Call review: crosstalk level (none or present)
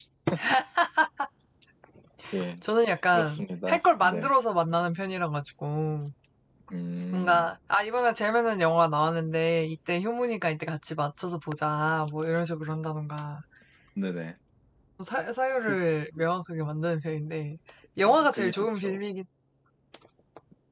present